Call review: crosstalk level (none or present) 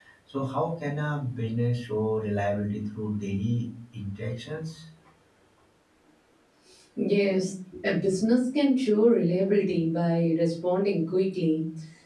none